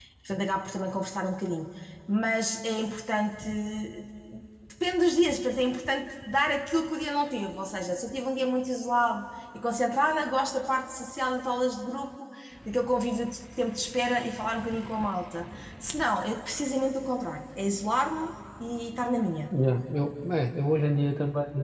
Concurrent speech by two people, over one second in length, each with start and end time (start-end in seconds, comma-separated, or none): none